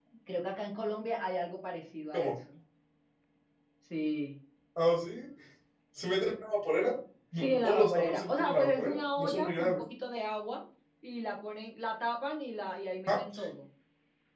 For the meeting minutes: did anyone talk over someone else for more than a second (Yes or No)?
Yes